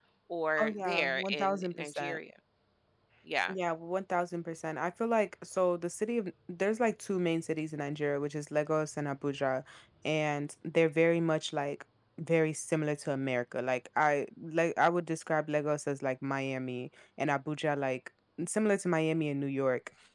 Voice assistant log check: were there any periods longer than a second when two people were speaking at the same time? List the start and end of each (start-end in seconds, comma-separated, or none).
0.6-2.2